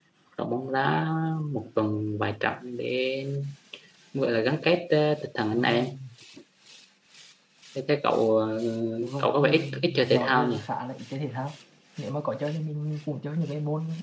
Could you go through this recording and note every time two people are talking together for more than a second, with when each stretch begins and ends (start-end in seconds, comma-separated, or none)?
9.2-10.6